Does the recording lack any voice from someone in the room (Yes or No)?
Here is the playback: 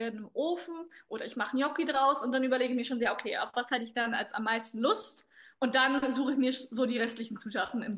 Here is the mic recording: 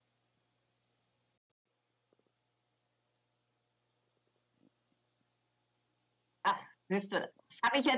No